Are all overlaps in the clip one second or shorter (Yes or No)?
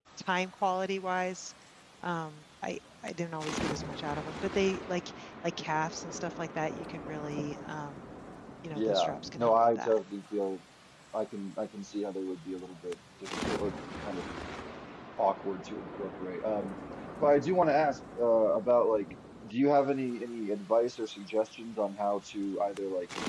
No